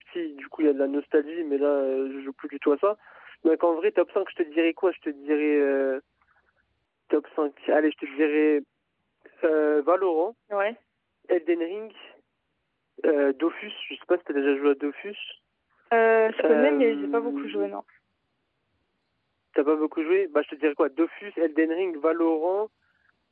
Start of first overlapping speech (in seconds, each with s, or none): 16.4 s